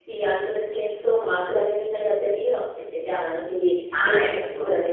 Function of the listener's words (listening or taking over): listening